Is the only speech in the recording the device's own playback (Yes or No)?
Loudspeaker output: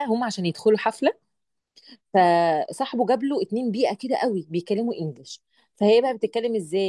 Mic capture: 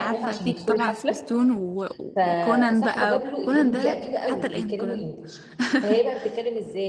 No